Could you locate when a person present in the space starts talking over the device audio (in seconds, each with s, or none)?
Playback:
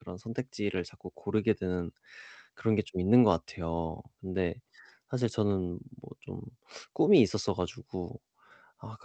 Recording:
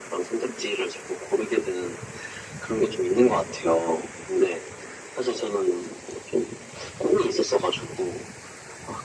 none